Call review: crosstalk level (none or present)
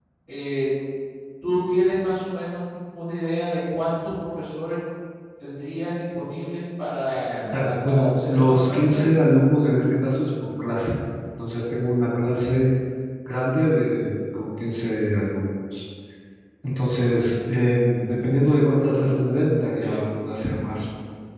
present